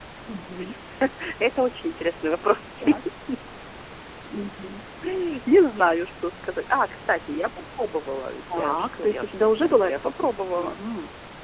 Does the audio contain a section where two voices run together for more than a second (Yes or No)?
Yes